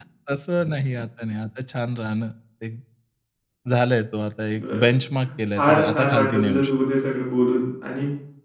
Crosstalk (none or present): present